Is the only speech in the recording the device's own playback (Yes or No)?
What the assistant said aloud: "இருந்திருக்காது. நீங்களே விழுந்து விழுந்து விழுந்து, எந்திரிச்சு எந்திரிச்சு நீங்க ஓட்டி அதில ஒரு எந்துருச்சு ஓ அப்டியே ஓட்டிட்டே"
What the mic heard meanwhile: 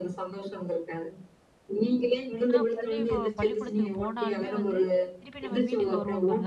No